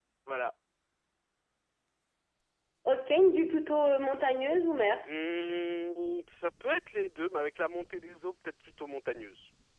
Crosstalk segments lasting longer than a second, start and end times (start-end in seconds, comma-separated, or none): none